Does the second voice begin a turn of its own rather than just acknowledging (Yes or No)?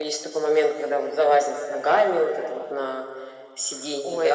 Yes